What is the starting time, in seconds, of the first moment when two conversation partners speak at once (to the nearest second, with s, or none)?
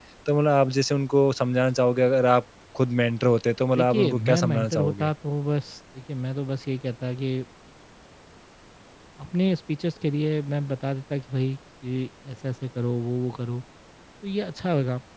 4 s